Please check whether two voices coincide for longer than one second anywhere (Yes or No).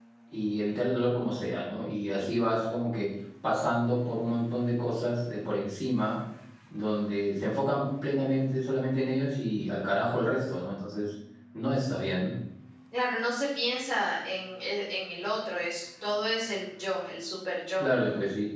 No